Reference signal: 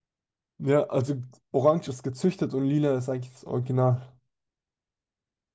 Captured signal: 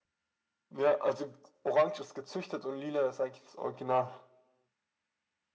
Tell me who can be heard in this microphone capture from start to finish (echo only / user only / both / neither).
echo only